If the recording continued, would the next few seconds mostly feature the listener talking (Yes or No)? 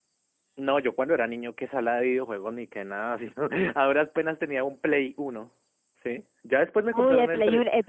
Yes